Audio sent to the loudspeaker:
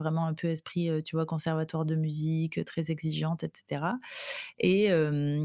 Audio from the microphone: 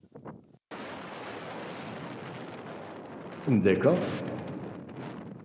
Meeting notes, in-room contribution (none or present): present